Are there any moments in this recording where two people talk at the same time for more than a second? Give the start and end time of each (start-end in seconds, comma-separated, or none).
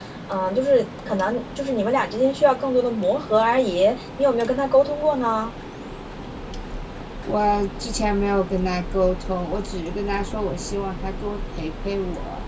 none